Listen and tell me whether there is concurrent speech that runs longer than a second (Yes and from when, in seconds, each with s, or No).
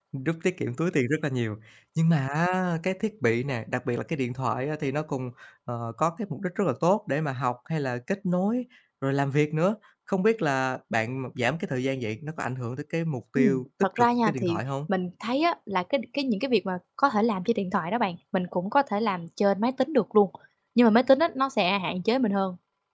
Yes, from 13.3 s